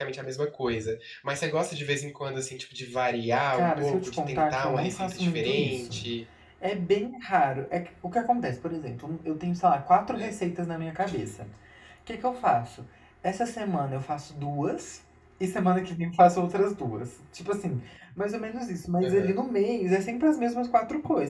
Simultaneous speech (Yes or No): Yes